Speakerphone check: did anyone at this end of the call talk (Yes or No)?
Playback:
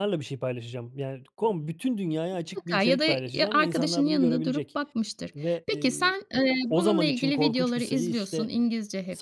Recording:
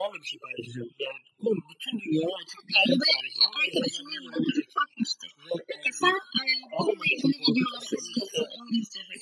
No